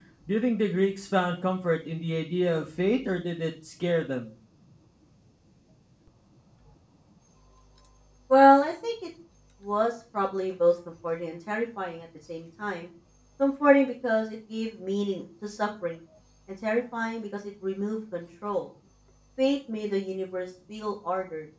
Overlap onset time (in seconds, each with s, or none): none